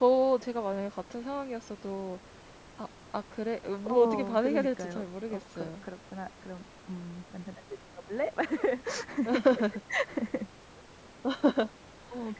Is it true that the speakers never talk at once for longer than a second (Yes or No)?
No